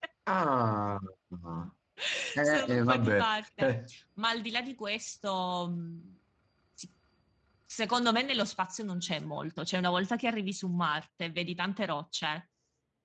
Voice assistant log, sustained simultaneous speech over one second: present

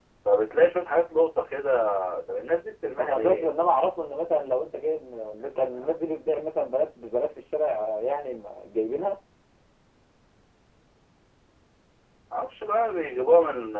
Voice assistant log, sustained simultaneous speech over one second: none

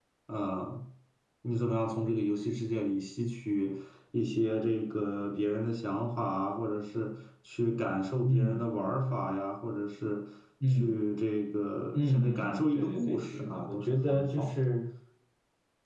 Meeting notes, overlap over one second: present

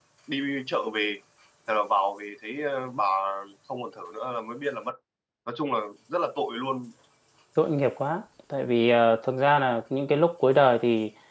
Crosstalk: none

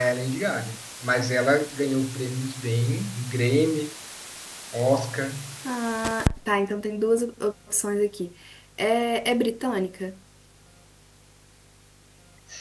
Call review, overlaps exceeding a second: none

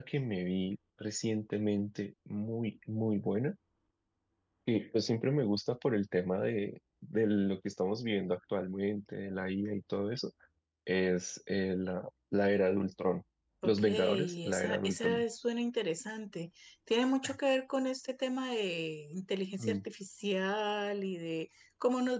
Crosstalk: present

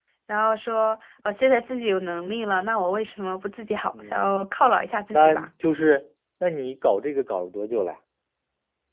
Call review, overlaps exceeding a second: none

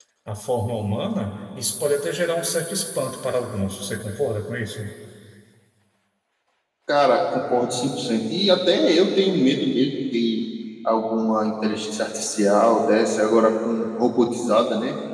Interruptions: none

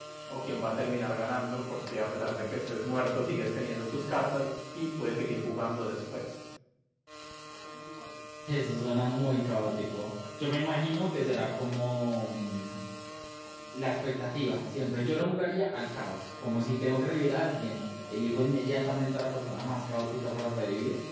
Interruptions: none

